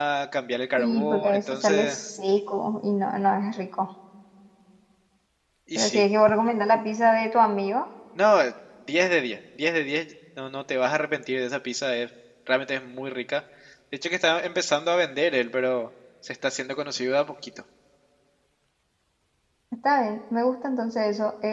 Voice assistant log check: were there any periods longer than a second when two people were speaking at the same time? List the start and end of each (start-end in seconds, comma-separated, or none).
0.8-2.0